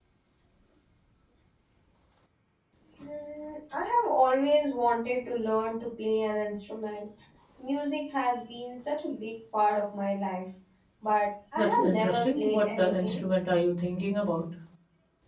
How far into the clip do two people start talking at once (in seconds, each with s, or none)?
11.6 s